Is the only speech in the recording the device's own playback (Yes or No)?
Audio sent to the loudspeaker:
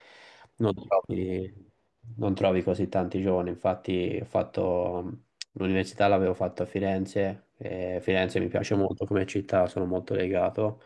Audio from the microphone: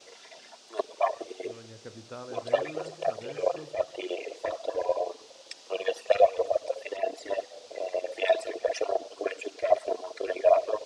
No